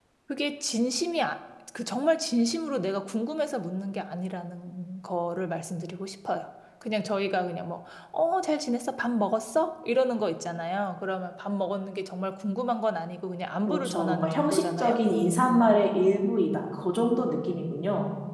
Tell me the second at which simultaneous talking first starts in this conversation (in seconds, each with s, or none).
13.7 s